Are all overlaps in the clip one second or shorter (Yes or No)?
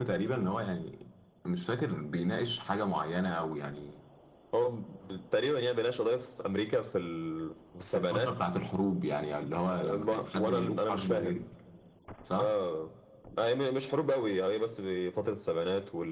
No